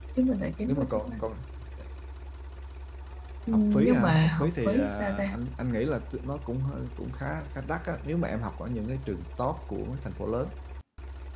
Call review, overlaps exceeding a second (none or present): present